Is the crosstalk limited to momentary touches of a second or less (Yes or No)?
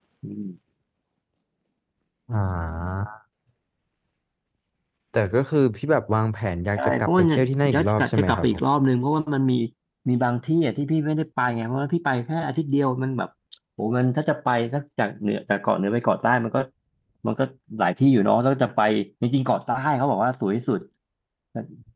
No